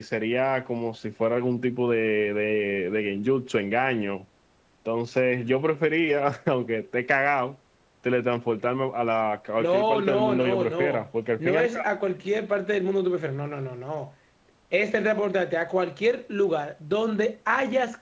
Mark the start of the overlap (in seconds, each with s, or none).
9.6 s